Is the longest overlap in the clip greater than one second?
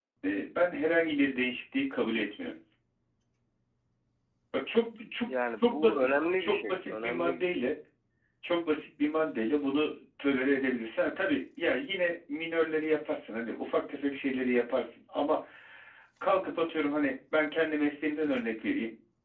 Yes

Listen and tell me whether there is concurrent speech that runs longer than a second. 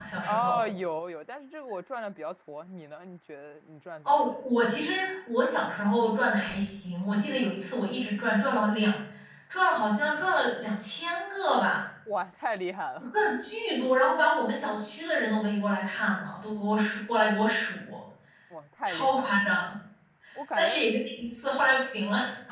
No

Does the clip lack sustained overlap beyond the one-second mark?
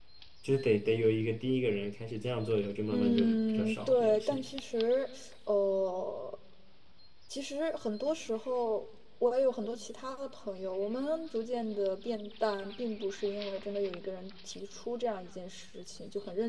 No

